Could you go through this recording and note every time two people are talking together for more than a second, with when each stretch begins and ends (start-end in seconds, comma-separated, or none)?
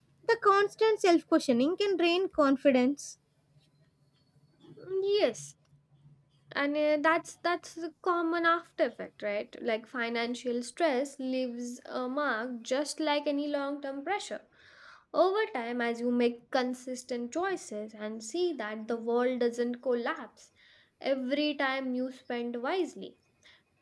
none